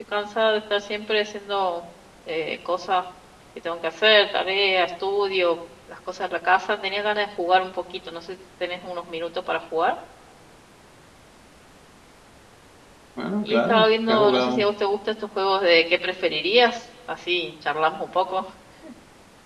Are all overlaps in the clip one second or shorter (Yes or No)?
No